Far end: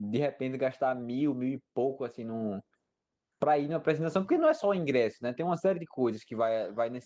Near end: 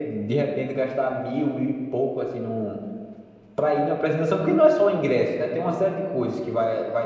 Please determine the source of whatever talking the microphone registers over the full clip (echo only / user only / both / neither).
echo only